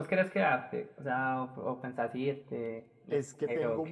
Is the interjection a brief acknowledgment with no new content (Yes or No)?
No